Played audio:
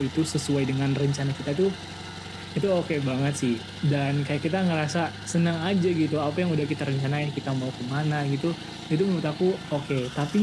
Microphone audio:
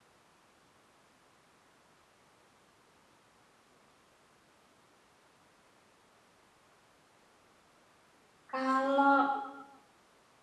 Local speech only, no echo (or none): Kalau